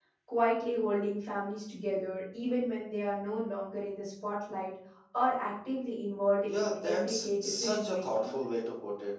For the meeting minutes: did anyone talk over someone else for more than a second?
Yes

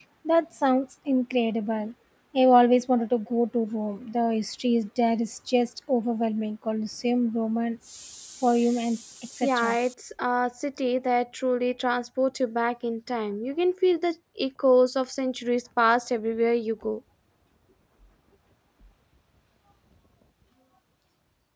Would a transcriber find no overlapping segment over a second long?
Yes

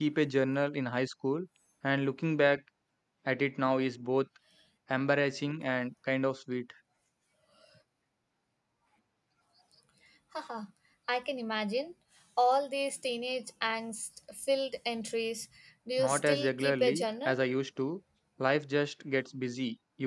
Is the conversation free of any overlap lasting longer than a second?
No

